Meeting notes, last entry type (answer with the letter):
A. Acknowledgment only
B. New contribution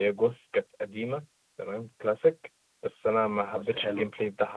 A